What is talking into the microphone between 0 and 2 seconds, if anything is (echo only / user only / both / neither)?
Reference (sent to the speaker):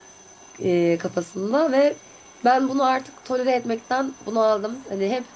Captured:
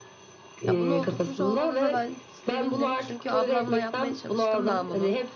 both